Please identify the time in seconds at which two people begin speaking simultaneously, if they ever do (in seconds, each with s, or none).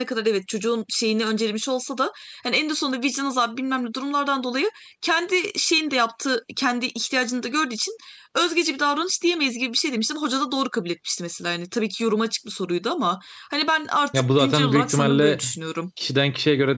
14.1 s